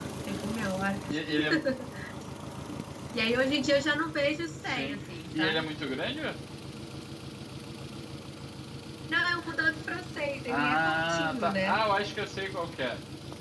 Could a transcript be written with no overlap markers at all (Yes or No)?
No